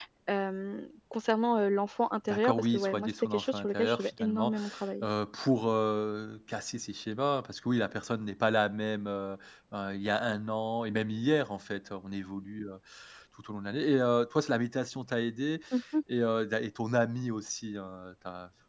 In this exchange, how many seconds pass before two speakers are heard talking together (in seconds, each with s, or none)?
2.3 s